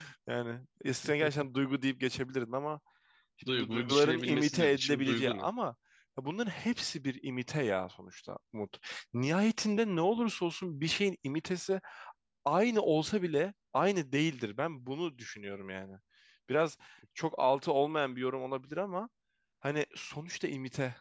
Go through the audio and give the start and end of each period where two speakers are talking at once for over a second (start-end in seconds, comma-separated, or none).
3.5-5.5